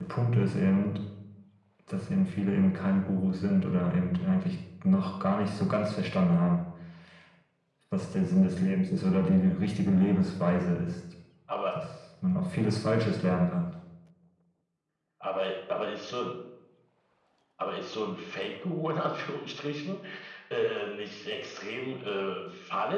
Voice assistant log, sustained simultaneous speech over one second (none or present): none